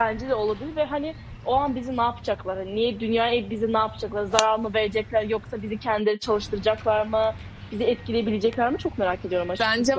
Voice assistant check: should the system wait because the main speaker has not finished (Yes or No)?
No